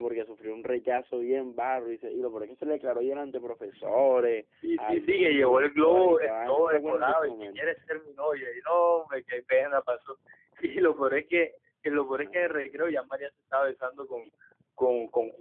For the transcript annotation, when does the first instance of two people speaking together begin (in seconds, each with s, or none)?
4.8 s